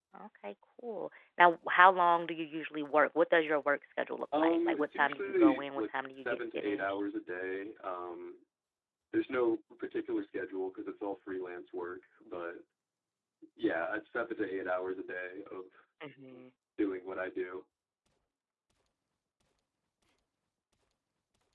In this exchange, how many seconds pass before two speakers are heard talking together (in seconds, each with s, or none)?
4.3 s